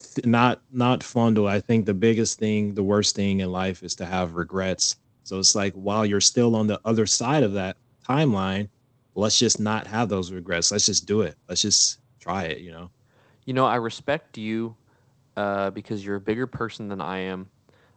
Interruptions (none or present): none